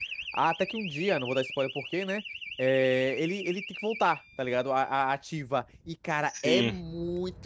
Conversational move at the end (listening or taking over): listening